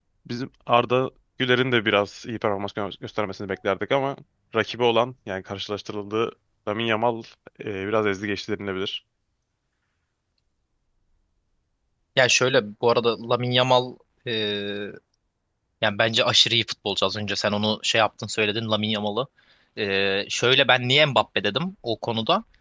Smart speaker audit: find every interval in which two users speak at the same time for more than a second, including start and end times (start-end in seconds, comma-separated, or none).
none